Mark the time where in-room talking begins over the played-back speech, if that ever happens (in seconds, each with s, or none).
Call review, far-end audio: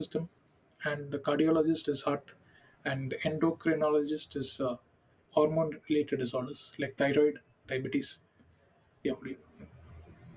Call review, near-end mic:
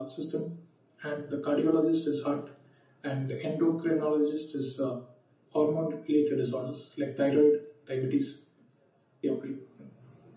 none